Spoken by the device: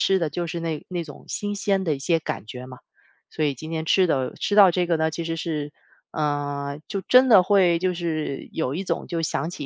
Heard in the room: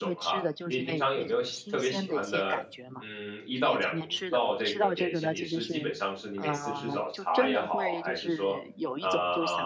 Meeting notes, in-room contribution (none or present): present